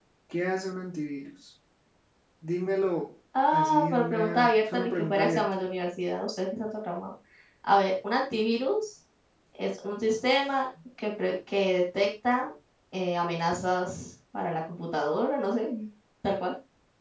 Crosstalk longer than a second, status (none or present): present